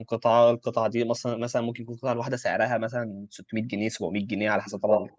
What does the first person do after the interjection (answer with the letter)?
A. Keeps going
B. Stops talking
B